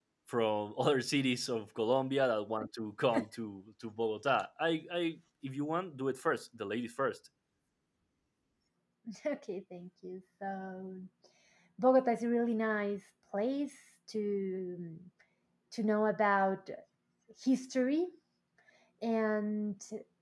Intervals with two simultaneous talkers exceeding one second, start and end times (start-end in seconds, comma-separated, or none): none